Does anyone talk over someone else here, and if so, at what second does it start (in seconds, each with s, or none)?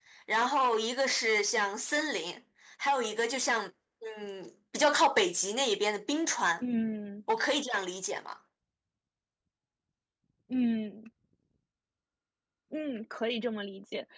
none